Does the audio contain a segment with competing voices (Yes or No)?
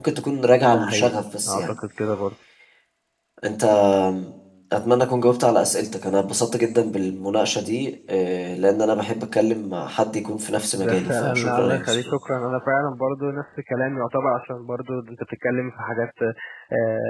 Yes